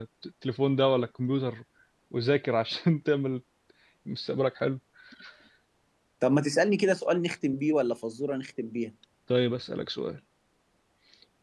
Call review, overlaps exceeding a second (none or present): none